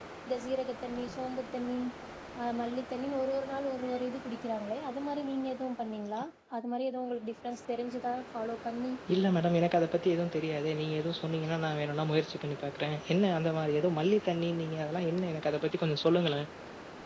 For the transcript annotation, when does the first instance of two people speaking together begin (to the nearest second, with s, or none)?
none